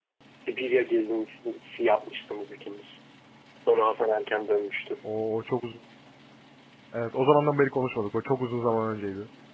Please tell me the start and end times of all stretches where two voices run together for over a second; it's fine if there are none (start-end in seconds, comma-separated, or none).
none